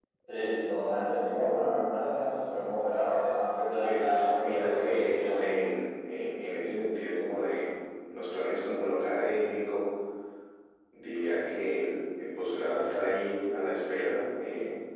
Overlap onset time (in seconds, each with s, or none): 3.8 s